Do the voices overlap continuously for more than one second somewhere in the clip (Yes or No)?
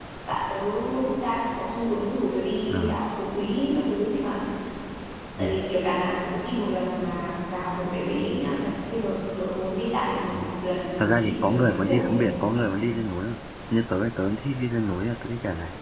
Yes